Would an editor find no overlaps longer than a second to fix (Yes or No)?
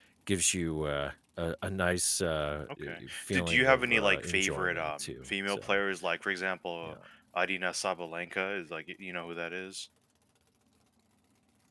No